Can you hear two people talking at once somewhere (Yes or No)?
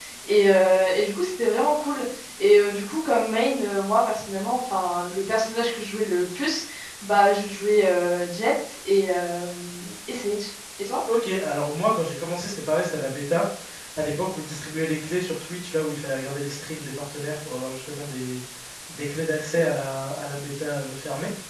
No